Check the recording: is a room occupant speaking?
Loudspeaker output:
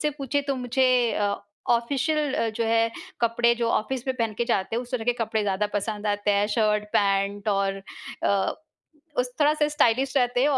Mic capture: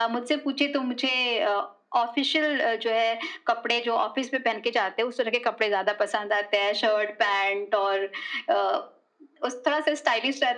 No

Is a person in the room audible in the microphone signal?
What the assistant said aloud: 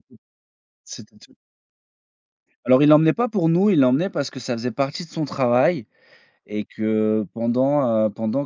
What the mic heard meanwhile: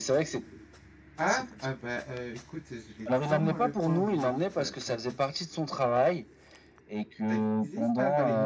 Yes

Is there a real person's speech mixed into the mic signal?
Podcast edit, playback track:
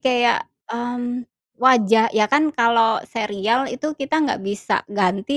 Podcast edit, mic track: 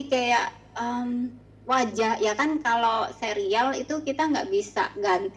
No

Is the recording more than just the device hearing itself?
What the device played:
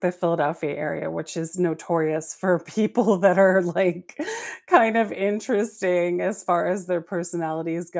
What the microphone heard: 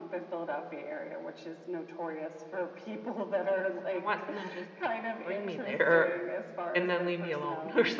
Yes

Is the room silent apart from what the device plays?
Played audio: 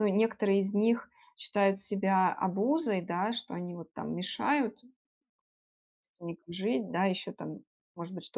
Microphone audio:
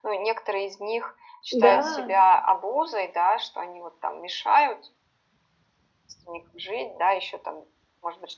No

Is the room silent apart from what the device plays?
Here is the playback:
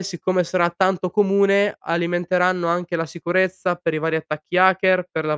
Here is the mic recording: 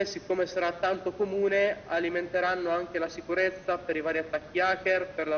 Yes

